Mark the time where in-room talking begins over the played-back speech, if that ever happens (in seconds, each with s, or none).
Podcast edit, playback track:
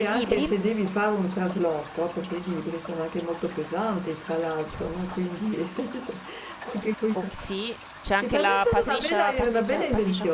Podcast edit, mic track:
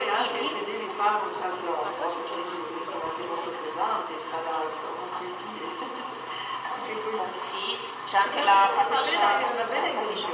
1.8 s